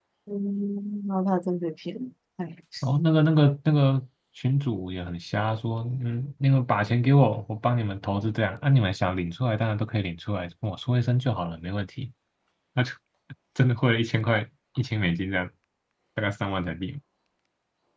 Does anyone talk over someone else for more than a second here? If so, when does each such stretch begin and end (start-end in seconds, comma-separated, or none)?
none